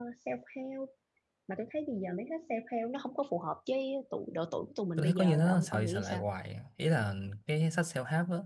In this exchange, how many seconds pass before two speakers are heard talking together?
5 s

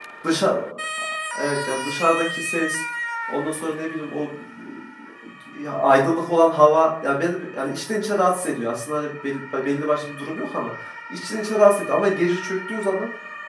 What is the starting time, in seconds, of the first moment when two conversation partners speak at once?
none

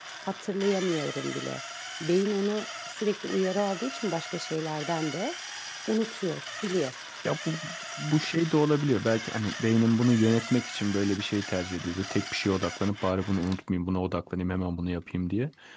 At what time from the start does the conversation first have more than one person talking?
none

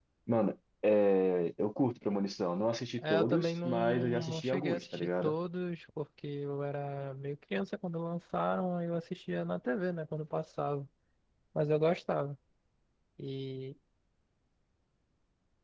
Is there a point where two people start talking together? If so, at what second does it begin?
3 s

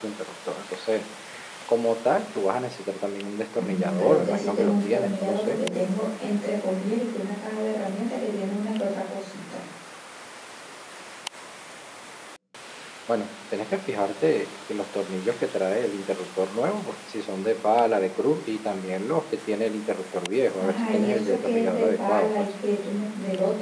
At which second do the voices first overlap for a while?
4 s

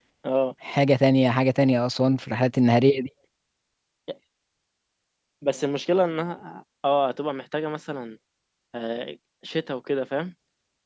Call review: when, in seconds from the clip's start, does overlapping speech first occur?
none

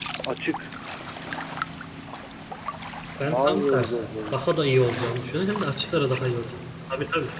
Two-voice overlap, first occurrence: 3 s

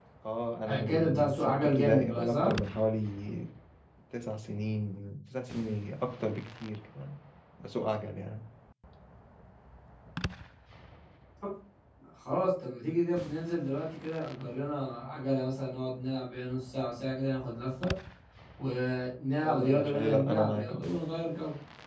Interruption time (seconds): 1 s

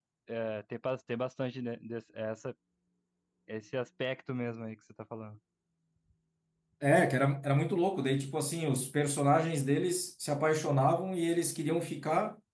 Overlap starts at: none

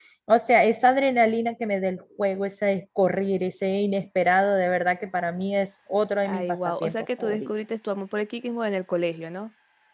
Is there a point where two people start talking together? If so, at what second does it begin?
6 s

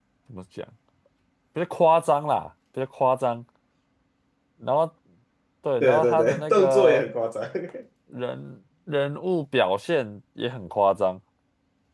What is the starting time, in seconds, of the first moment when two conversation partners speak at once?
6 s

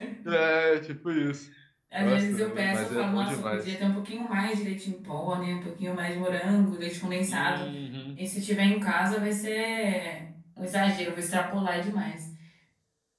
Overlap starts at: 2 s

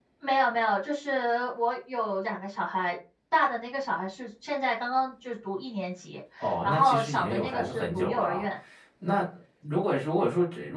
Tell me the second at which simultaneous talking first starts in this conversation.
7 s

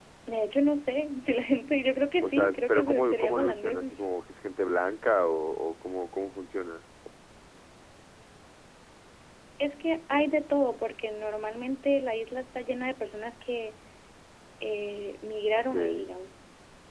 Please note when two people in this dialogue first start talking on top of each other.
2 s

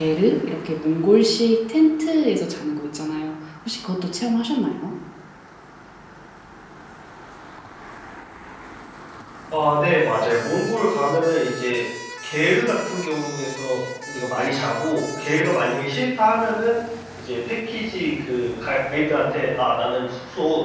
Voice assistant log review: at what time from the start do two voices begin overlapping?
none

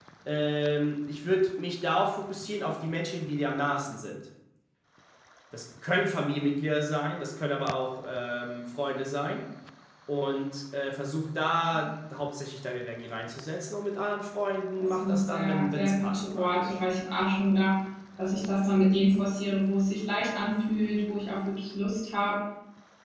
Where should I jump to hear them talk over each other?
15 s

